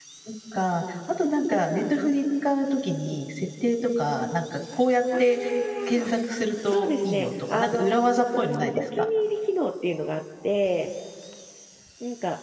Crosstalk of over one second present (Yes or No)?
Yes